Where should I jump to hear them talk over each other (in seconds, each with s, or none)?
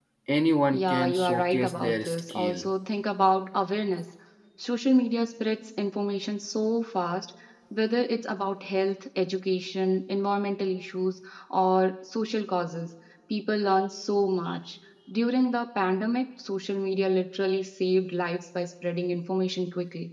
0.7 s